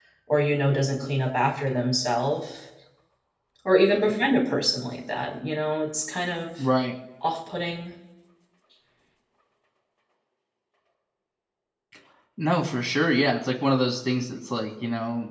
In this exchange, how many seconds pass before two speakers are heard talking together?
none

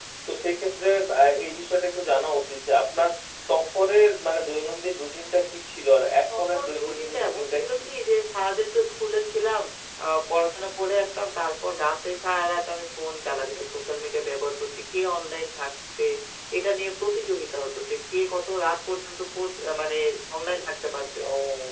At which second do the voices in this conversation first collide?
6.4 s

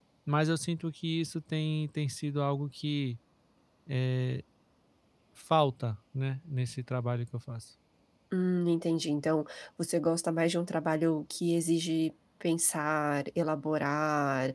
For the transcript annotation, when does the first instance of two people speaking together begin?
none

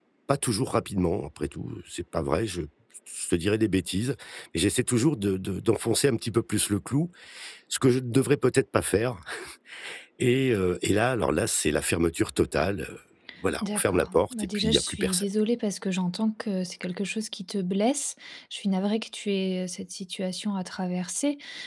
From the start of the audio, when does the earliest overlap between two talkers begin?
13.6 s

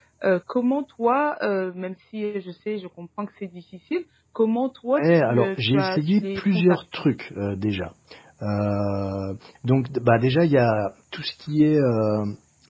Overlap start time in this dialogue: 5.0 s

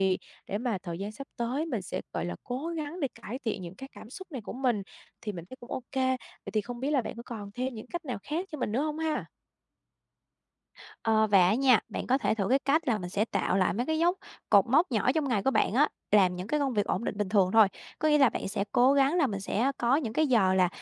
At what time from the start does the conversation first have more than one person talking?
none

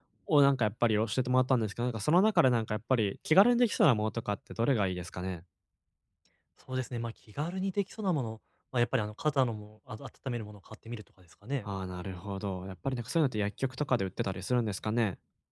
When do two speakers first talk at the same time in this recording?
none

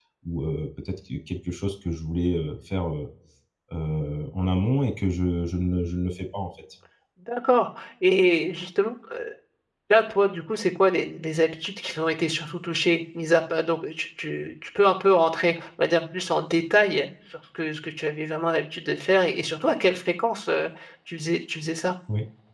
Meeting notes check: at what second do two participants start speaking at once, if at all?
none

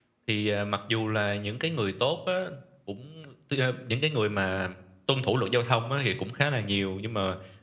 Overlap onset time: none

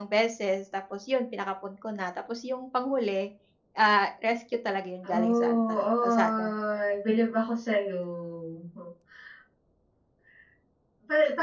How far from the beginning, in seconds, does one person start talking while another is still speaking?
5.0 s

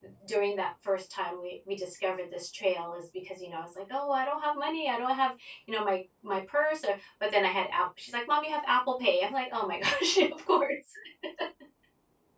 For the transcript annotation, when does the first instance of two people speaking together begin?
none

